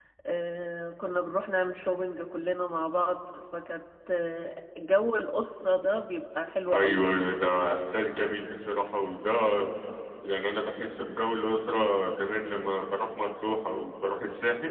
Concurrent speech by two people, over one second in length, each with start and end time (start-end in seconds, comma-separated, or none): none